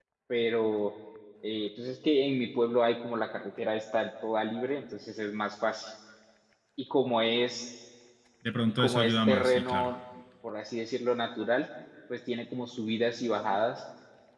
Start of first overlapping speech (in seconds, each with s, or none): 8.7 s